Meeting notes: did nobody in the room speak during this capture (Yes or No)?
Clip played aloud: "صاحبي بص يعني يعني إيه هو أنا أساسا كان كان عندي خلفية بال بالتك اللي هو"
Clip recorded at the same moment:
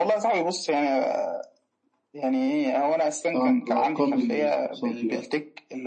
No